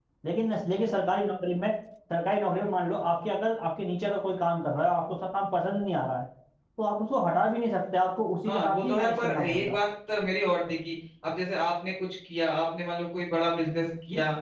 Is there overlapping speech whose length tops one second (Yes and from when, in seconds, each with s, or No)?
Yes, from 8.4 s